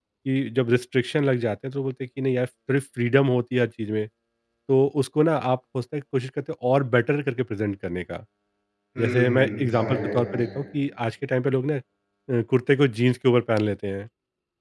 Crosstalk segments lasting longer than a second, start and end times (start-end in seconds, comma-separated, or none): 9.0-10.4